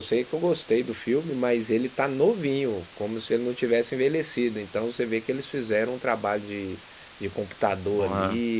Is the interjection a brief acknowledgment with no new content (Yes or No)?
Yes